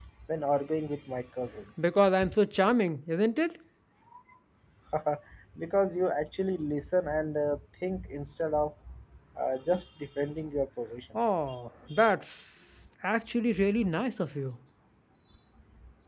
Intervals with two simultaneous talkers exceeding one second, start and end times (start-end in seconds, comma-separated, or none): none